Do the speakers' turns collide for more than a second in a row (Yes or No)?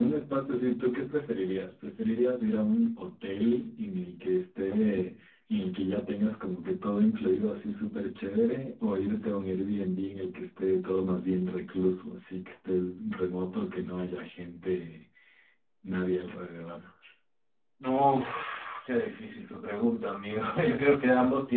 No